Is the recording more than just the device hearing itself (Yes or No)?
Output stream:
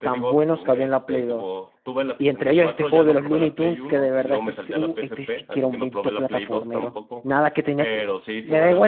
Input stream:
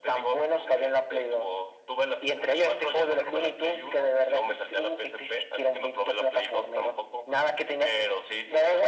No